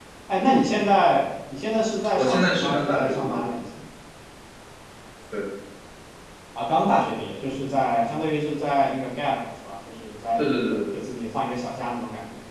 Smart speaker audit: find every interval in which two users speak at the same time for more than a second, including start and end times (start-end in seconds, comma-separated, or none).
2.2-3.4